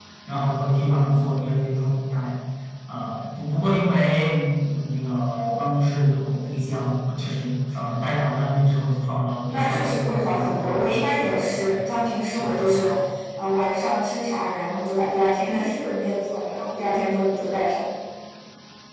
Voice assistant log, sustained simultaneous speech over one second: present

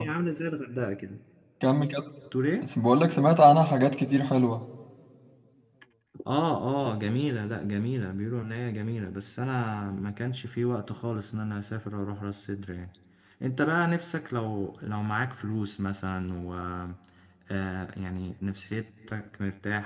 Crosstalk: none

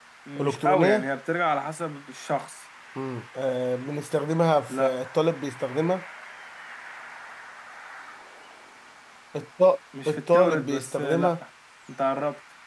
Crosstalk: present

